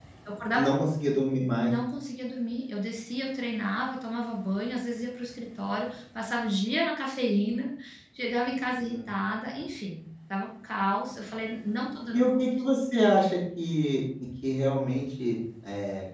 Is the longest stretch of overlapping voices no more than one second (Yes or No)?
Yes